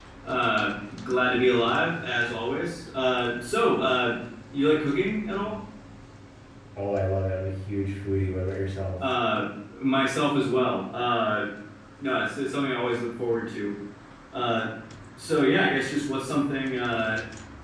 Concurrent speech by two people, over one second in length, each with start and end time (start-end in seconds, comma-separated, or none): none